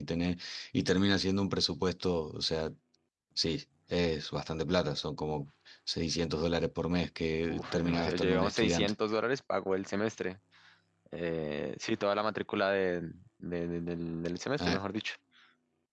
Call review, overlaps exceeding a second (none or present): present